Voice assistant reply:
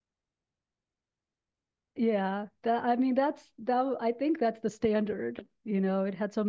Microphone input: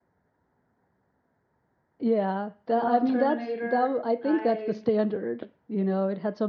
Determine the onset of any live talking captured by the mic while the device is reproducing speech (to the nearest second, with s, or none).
3 s